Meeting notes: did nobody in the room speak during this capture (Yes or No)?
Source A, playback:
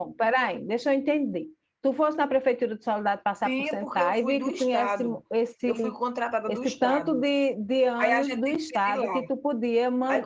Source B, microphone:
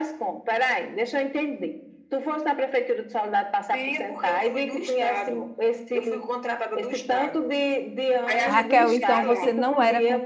No